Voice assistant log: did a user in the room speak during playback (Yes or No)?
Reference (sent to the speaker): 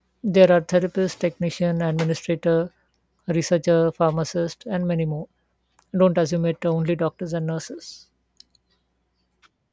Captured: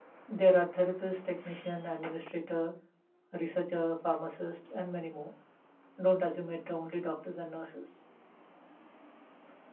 No